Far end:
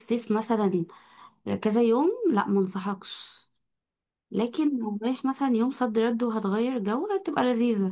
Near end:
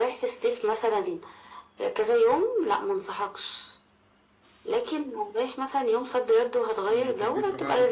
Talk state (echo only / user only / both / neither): both